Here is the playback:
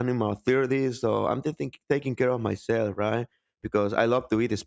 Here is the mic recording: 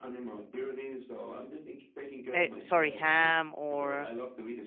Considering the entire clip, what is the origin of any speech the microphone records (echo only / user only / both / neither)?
both